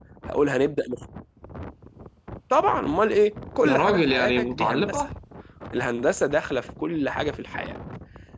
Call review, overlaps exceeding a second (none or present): present